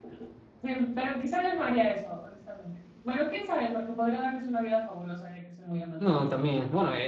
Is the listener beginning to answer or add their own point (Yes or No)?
Yes